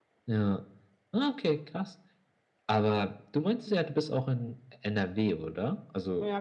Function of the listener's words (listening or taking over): taking over